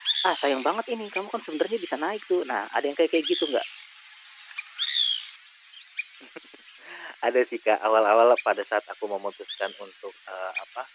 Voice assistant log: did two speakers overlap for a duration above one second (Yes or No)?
No